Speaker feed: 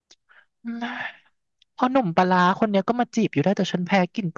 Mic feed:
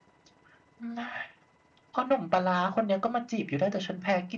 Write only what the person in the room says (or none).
none